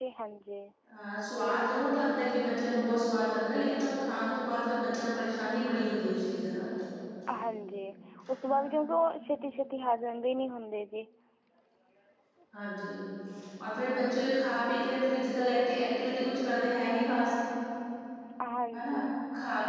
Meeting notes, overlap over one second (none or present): none